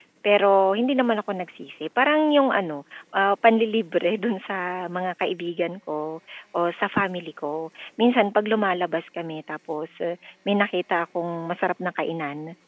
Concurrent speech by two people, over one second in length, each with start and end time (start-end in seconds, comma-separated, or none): none